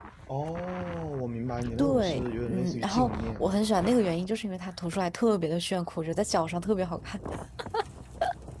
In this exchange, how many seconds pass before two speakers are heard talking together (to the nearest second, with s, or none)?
2 s